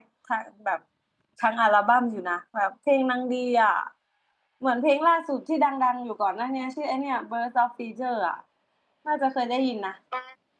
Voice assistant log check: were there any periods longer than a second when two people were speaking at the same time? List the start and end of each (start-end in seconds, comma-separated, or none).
none